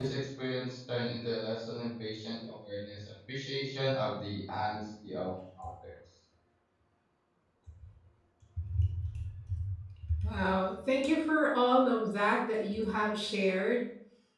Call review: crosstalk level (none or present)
none